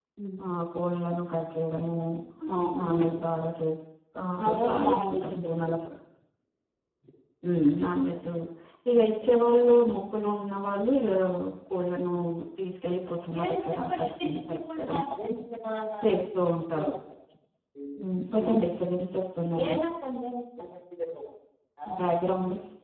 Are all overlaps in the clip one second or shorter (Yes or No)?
No